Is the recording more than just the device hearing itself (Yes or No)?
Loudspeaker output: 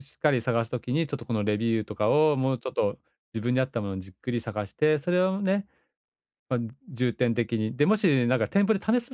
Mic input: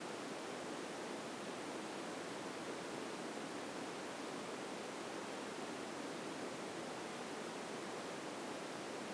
No